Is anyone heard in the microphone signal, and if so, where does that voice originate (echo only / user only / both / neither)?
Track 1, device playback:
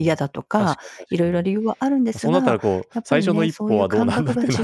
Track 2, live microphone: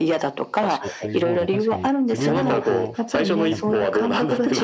both